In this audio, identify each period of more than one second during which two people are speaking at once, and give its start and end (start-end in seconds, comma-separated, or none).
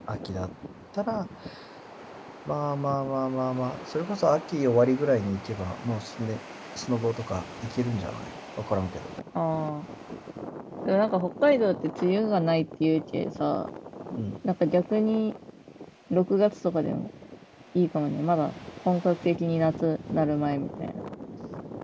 none